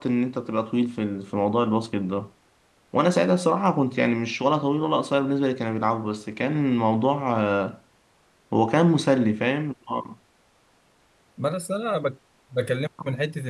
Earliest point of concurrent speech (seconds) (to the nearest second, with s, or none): none